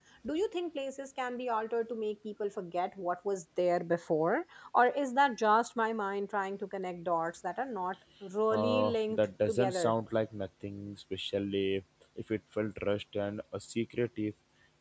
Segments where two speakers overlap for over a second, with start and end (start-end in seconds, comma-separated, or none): 8.5-9.9